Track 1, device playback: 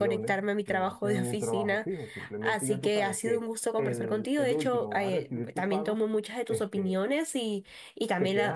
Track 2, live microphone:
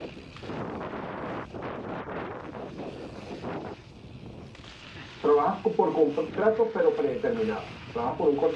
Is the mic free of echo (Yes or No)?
Yes